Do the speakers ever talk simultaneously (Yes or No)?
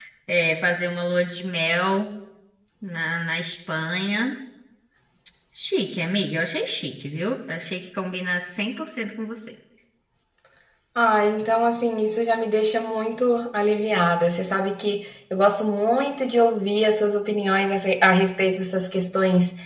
No